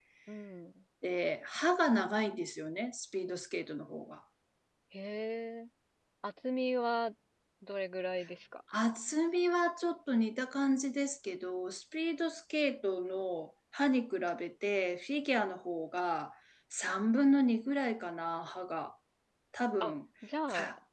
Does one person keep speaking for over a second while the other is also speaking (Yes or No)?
No